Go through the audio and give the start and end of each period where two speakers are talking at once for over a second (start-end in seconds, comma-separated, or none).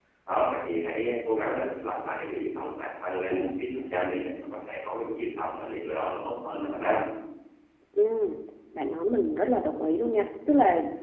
none